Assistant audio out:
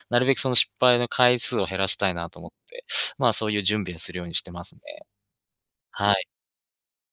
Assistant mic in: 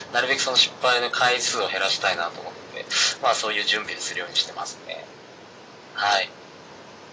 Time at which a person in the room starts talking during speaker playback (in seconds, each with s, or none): none